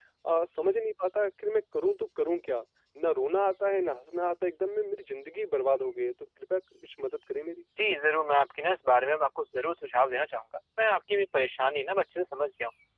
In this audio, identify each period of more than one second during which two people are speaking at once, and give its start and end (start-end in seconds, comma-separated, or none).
none